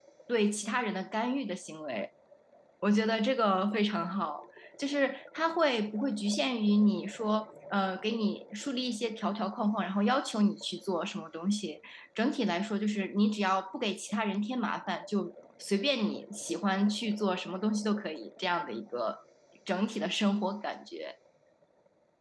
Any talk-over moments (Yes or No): No